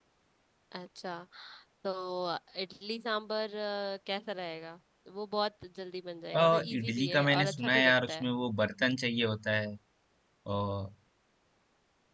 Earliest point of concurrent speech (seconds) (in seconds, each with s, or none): 6.3 s